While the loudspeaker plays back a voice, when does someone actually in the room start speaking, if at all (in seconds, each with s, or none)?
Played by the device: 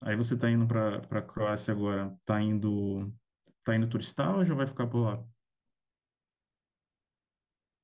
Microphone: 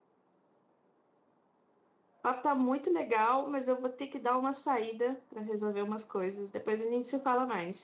2.2 s